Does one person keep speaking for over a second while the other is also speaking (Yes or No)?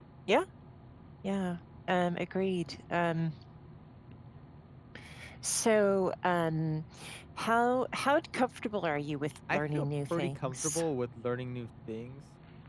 Yes